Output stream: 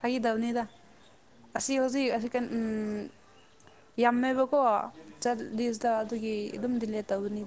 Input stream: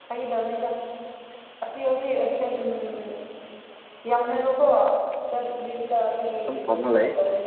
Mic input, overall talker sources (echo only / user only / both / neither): both